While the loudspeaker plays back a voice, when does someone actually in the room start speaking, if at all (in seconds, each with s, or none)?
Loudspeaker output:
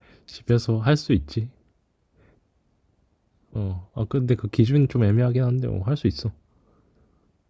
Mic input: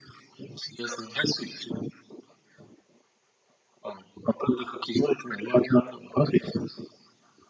none